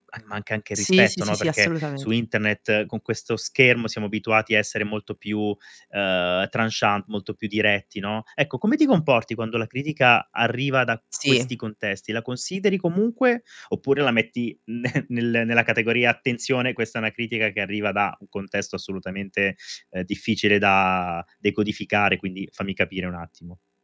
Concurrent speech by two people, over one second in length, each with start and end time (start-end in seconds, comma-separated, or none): 0.8-2.1